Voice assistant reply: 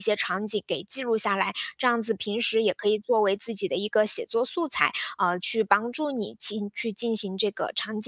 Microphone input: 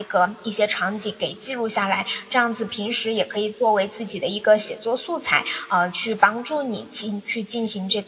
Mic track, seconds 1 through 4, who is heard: echo only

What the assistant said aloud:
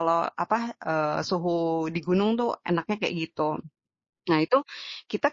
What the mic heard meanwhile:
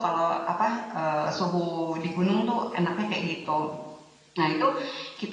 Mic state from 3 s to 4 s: echo only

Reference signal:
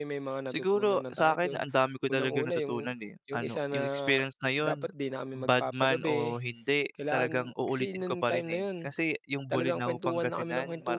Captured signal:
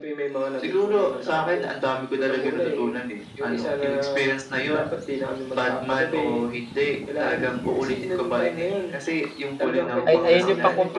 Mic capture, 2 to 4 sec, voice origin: echo only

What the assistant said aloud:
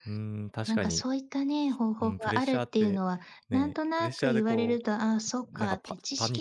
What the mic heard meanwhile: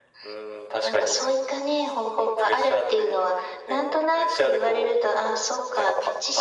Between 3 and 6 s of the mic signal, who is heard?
echo only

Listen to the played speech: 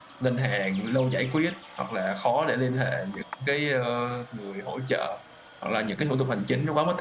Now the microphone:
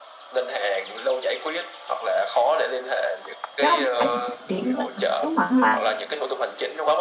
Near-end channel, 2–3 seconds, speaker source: echo only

